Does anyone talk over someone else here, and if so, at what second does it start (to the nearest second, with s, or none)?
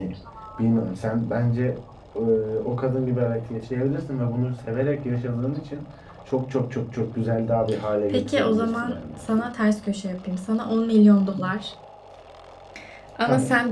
8 s